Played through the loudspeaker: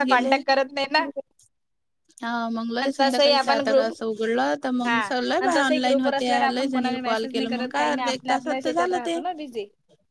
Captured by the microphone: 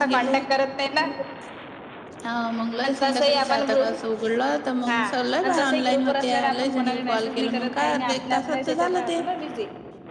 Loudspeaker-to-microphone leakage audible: Yes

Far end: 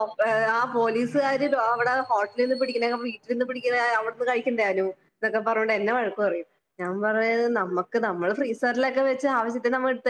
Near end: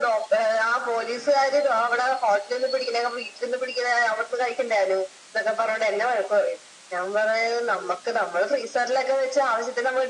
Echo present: Yes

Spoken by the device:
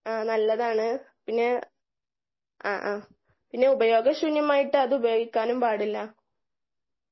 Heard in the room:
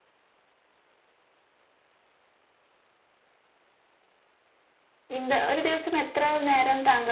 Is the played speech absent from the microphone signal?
Yes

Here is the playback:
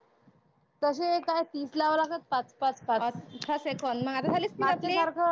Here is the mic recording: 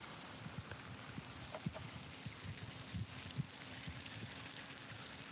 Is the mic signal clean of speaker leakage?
Yes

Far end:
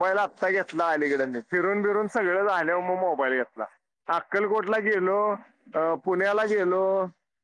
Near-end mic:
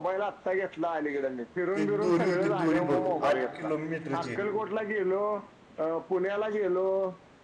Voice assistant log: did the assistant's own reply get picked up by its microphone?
Yes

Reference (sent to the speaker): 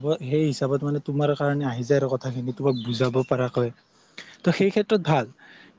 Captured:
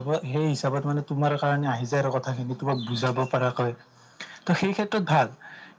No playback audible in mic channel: No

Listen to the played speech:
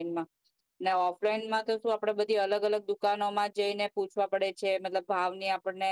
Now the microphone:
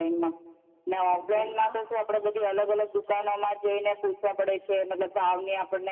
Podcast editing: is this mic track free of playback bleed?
No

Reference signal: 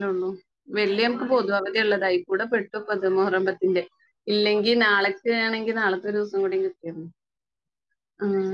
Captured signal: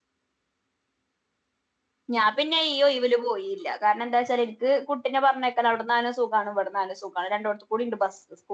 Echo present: No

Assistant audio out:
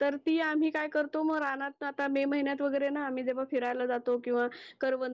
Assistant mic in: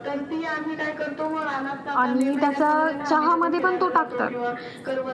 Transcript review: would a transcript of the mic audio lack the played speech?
No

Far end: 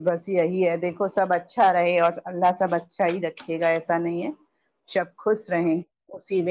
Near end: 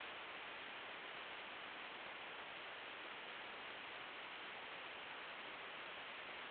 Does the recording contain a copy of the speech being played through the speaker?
No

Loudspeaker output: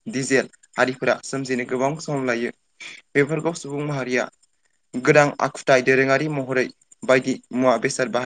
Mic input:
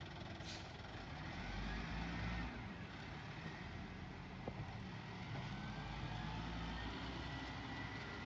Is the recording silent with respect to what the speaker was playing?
Yes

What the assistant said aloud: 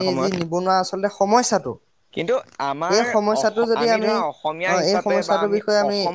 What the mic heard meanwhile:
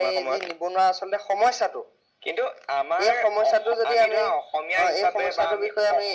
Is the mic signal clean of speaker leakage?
No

